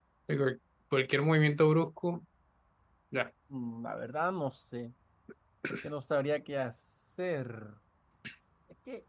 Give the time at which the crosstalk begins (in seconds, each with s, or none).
none